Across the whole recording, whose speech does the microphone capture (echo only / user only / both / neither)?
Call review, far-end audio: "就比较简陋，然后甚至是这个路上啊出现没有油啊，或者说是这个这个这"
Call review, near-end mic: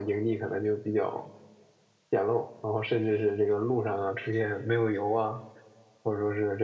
echo only